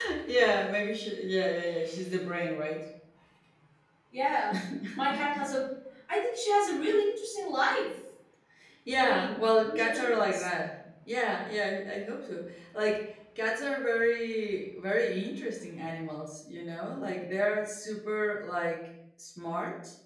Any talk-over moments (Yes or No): Yes